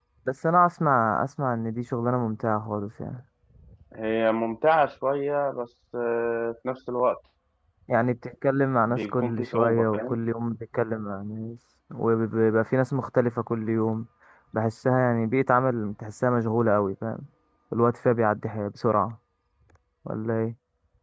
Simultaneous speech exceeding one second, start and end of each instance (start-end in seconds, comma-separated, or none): 8.9-10.2